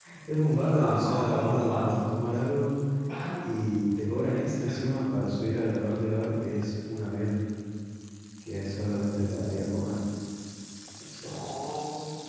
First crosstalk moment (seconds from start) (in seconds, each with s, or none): 0.7 s